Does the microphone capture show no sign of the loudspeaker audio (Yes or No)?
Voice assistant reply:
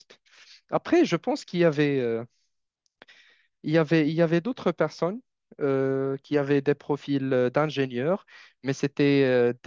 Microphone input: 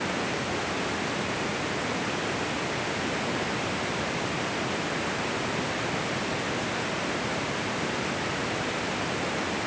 Yes